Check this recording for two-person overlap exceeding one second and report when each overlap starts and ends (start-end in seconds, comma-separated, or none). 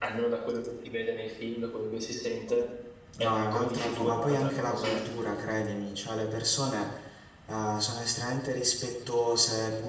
3.2-5.2